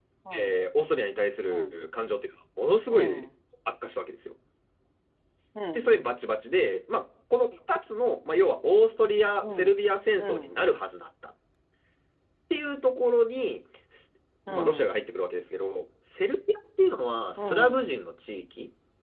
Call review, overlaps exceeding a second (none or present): none